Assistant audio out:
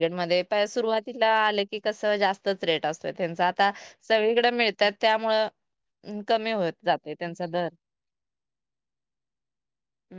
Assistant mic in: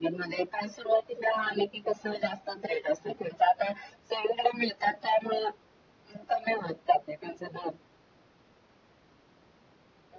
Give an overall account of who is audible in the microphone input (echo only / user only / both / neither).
echo only